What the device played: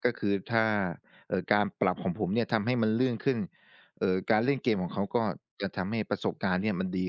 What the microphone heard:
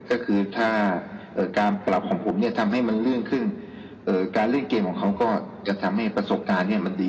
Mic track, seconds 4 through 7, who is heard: echo only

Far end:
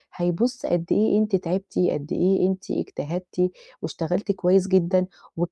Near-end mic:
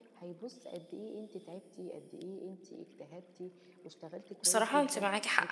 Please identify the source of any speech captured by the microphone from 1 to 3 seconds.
echo only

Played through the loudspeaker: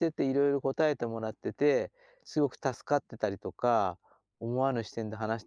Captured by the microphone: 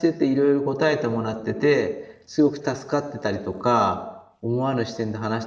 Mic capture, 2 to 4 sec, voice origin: echo only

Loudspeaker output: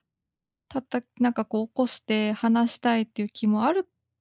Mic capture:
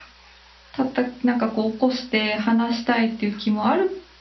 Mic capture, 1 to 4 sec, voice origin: echo only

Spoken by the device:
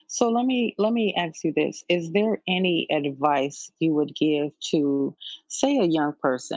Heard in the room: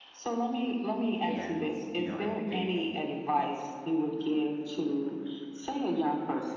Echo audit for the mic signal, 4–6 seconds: echo only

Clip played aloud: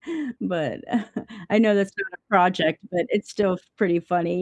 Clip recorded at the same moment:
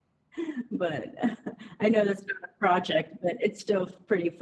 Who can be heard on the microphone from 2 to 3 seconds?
echo only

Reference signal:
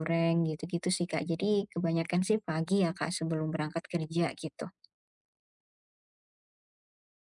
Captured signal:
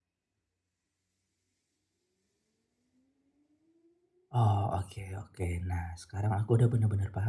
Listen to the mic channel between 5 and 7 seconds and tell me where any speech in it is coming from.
user only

